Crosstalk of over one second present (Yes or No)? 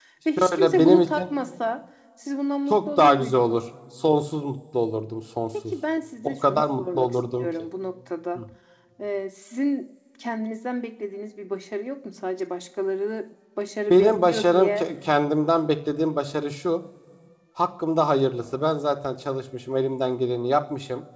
Yes